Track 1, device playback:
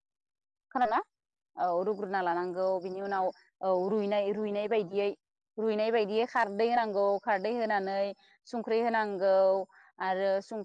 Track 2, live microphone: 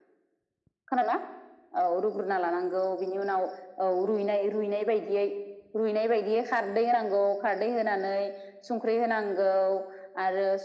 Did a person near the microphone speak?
No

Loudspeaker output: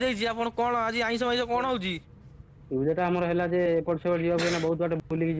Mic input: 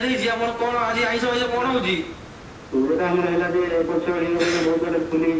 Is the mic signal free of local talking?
Yes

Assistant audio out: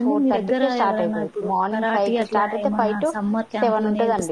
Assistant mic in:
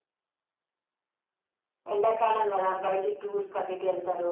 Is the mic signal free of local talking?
No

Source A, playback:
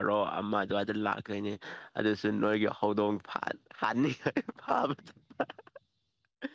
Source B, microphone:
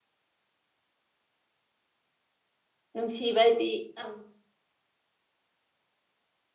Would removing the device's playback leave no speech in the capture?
No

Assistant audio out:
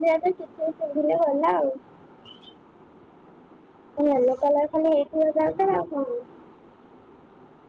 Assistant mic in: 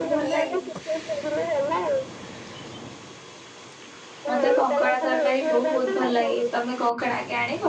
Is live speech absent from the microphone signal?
No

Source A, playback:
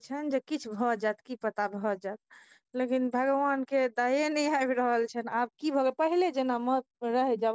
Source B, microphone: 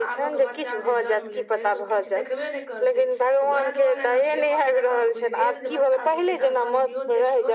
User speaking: Yes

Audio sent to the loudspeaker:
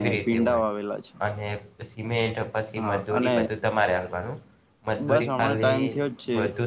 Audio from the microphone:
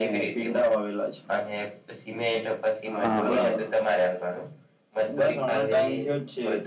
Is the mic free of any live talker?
No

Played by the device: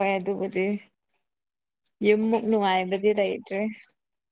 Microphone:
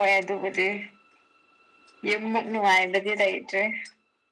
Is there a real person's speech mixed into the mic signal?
No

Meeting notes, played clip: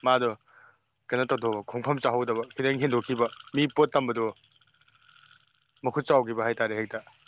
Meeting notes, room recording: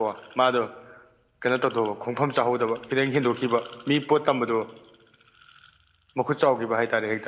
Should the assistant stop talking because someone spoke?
No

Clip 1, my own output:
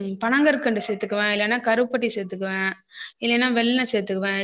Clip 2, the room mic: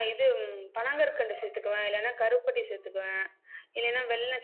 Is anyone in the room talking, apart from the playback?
No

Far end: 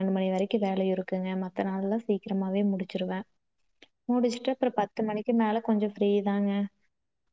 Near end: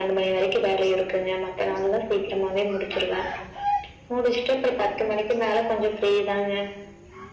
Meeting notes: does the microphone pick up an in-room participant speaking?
No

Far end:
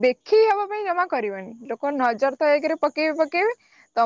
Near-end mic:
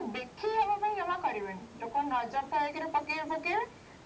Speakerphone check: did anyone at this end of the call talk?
No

